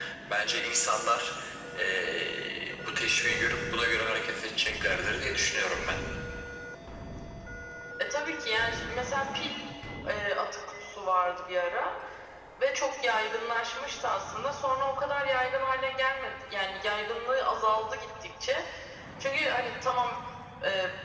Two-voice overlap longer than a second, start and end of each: none

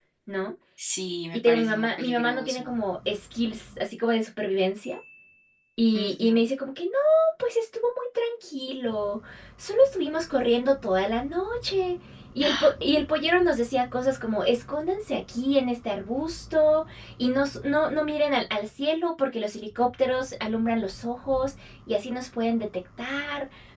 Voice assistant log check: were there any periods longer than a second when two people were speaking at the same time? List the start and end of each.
1.3-2.8

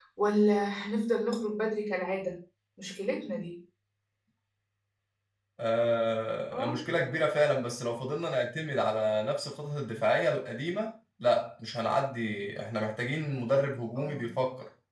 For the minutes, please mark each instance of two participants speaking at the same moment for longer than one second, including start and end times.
none

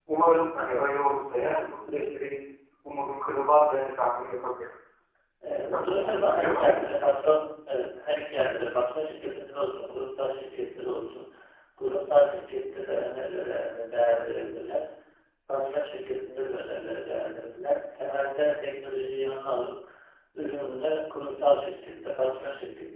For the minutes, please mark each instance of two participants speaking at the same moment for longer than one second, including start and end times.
5.7-7.0

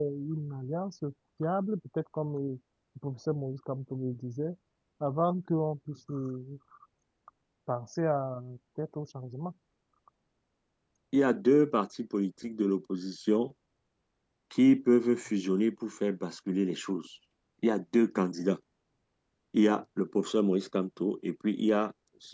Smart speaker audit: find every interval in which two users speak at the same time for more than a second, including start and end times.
none

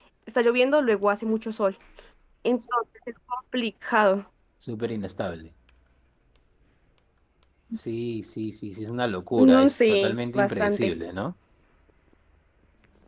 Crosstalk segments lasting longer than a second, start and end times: 9.3-10.9

